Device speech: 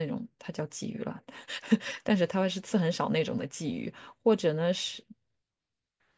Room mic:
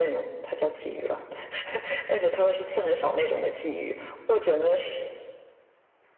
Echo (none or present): present